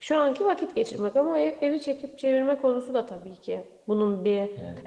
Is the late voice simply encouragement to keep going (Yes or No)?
No